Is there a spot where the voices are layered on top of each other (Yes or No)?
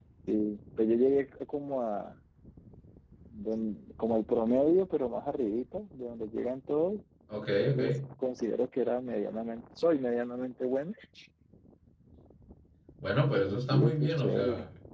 Yes